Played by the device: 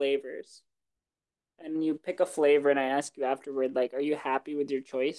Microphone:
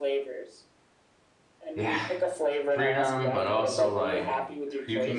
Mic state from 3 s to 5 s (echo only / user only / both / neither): both